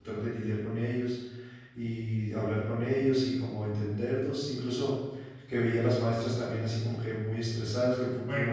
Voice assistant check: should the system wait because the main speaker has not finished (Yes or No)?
No